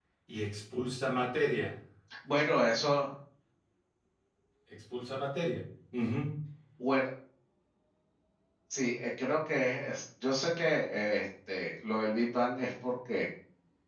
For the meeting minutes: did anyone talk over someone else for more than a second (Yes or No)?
No